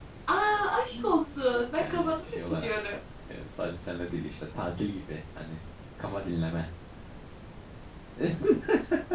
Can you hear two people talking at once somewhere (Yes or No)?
Yes